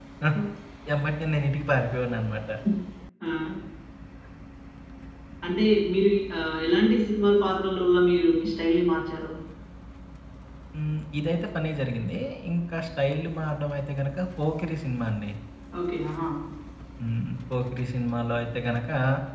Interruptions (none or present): none